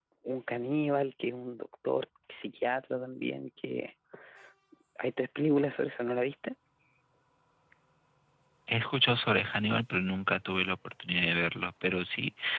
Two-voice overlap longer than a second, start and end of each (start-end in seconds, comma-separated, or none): none